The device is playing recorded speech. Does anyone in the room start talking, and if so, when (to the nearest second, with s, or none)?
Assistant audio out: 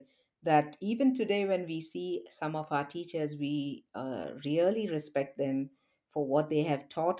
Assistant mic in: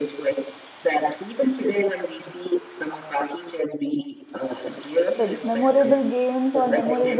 5 s